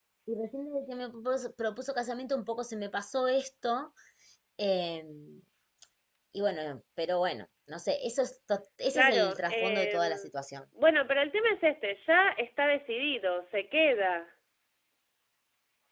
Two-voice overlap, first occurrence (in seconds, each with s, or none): 8.9 s